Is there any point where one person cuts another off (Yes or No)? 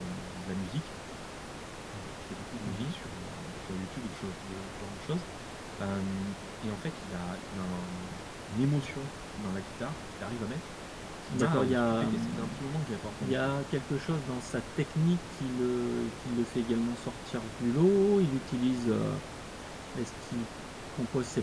Yes